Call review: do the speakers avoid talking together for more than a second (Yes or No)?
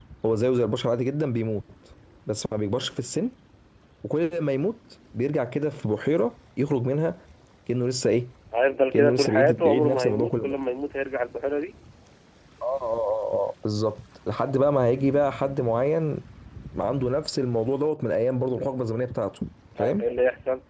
No